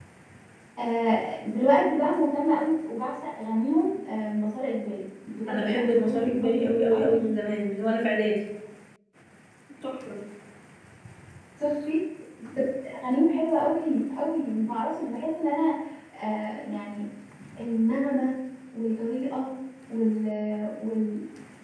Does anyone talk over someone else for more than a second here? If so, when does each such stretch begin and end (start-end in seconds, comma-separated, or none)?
5.5-7.2